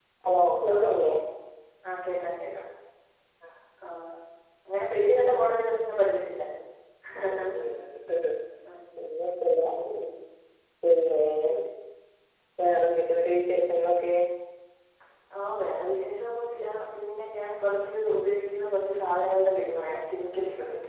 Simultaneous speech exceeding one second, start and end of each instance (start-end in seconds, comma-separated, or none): none